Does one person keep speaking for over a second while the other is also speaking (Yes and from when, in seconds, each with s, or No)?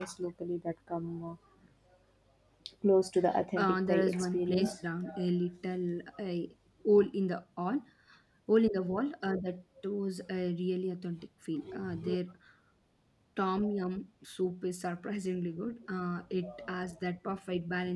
Yes, from 3.6 s